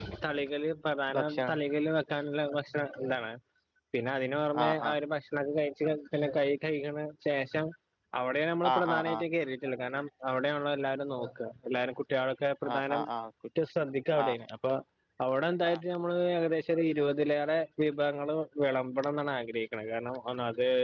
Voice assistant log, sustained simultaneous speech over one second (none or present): none